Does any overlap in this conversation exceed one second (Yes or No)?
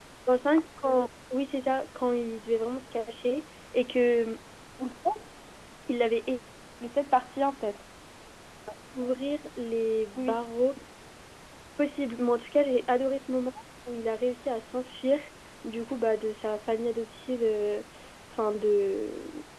No